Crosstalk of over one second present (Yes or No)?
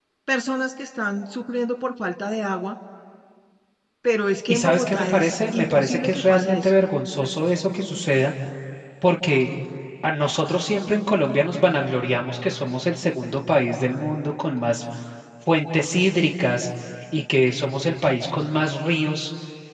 Yes